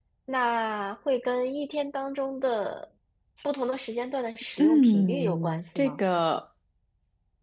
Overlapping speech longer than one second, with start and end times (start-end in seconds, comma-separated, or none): 4.6-6.0